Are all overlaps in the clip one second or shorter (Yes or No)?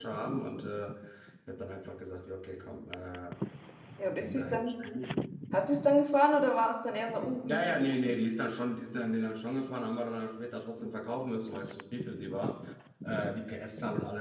Yes